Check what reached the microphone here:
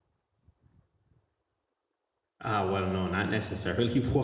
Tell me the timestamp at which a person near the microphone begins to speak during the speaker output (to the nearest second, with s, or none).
2 s